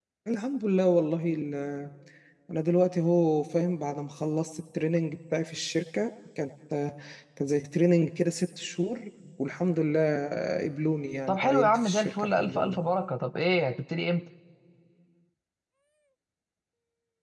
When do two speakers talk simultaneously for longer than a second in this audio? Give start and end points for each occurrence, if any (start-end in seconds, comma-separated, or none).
11.3-12.8